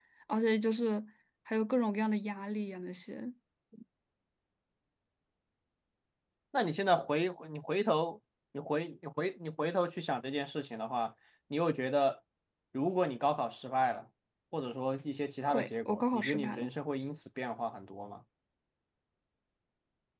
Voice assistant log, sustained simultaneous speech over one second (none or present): present